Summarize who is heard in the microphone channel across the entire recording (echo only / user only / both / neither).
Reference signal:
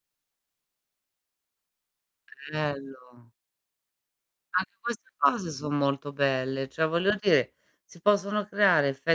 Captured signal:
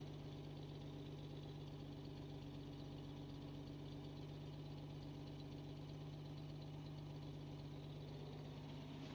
neither